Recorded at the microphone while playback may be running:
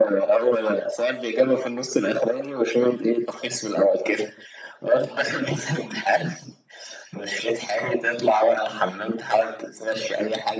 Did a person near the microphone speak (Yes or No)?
No